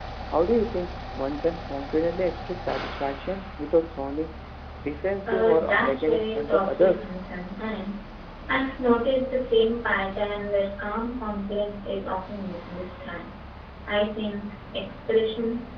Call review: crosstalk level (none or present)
present